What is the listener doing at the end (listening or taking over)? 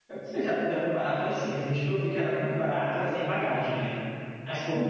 taking over